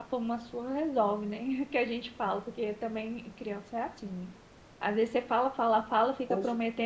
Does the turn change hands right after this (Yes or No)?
No